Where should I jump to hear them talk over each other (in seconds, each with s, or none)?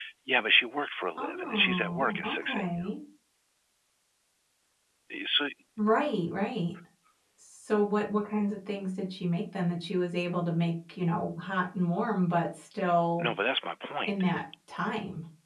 1.2 s